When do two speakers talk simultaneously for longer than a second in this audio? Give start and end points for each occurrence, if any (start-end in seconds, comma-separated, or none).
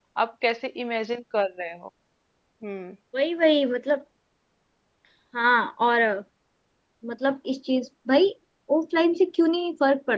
none